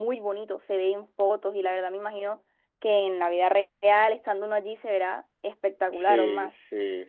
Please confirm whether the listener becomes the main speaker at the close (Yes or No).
Yes